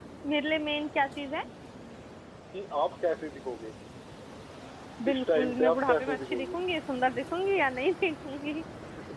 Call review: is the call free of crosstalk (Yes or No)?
No